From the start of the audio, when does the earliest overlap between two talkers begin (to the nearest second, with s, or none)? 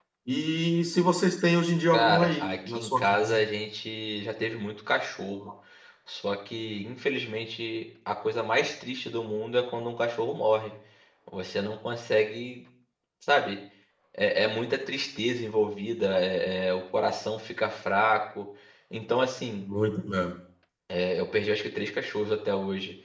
2 s